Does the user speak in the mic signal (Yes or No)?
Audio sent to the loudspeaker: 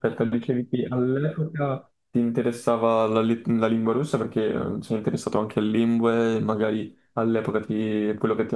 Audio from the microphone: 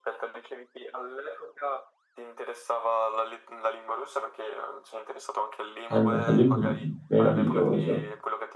Yes